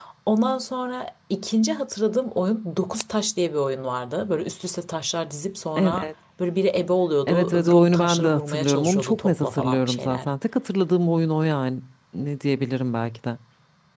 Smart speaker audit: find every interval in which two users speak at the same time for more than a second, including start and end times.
7.3-10.3

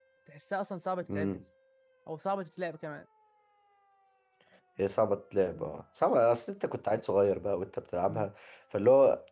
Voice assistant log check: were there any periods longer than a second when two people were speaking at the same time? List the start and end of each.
none

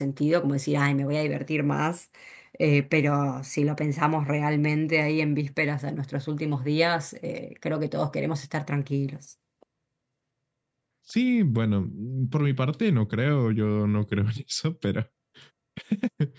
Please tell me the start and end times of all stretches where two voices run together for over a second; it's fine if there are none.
none

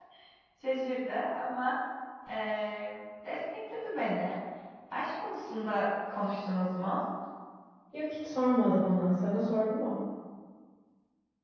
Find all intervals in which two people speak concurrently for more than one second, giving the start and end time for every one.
none

